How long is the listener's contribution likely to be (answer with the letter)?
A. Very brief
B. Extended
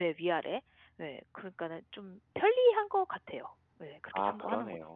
B